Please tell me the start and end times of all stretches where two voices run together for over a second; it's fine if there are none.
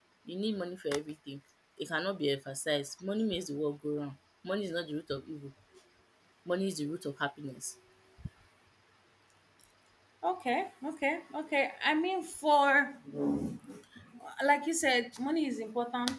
none

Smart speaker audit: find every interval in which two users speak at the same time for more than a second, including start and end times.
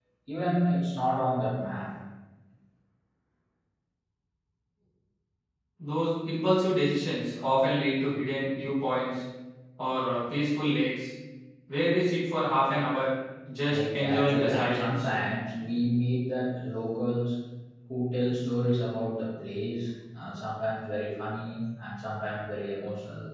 13.7-15.1

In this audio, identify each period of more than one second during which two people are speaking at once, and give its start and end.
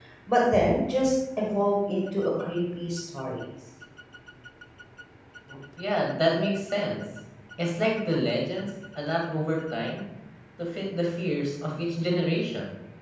none

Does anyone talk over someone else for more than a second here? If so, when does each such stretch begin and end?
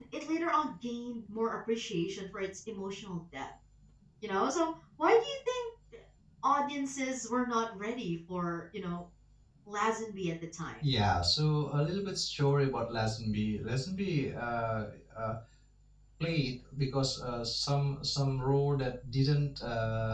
none

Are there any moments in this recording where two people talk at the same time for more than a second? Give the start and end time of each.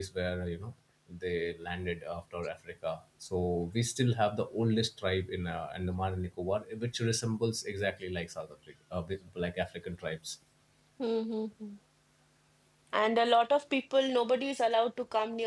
none

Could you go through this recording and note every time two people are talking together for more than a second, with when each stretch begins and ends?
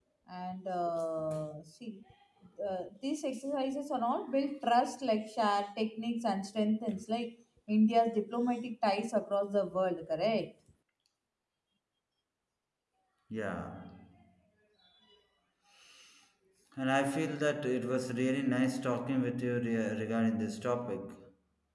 none

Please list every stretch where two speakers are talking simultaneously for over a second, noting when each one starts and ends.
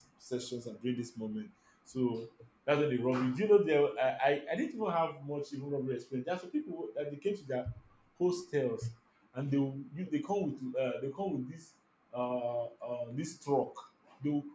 none

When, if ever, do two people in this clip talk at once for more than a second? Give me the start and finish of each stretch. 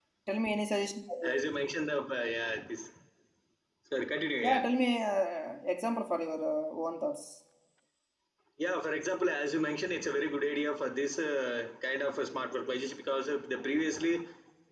none

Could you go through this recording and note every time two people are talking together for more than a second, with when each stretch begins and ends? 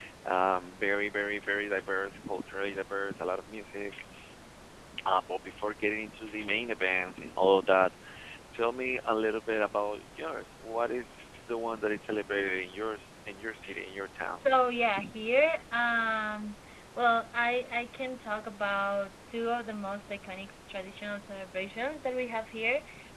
none

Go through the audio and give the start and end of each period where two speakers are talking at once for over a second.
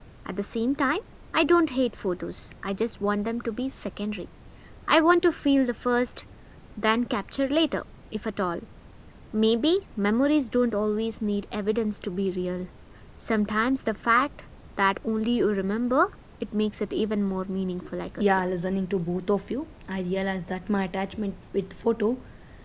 none

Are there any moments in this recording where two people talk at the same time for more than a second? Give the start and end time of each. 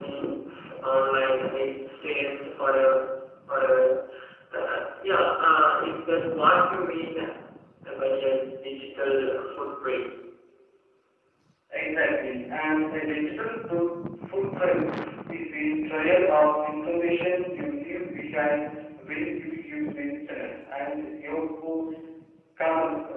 none

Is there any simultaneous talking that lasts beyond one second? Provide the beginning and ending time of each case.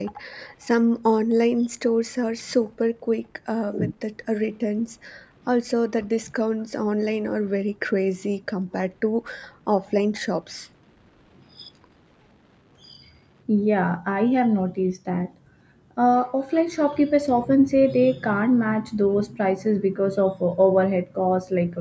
none

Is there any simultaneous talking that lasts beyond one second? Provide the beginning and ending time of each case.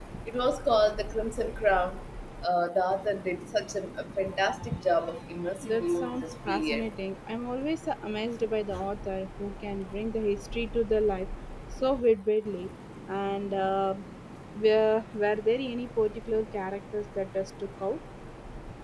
5.6-6.9

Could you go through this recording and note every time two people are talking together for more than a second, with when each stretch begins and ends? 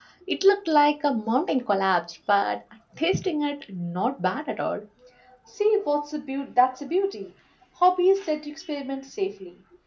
none

